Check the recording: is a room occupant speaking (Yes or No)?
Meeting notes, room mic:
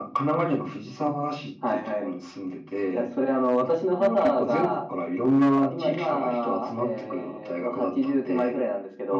No